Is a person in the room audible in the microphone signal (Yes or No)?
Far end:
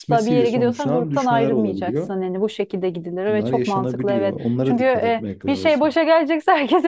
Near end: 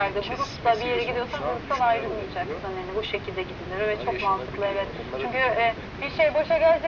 No